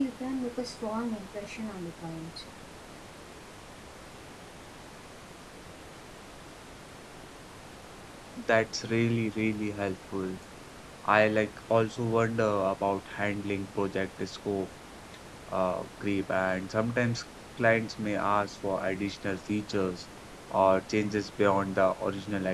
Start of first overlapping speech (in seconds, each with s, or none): none